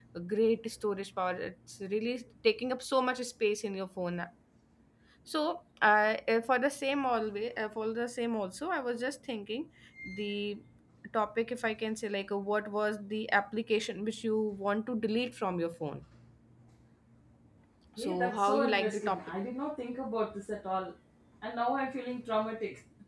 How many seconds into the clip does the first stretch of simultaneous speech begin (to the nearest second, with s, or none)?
18 s